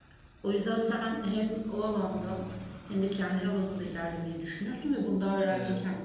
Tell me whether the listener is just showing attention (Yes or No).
Yes